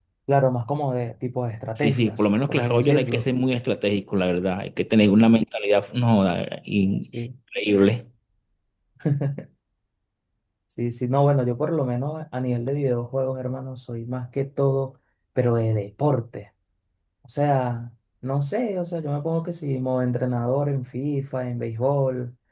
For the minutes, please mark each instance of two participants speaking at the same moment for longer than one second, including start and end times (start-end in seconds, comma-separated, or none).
1.8-3.3